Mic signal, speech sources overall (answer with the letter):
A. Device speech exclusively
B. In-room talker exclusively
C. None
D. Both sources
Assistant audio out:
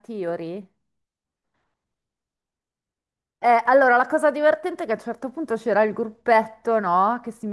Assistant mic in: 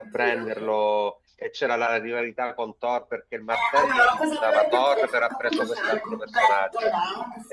D